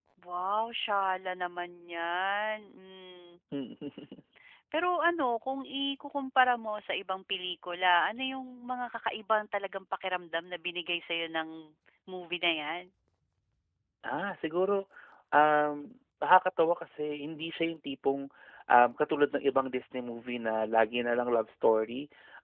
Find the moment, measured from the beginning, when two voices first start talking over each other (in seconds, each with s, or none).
none